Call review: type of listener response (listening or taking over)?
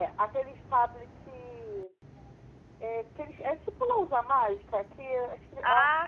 listening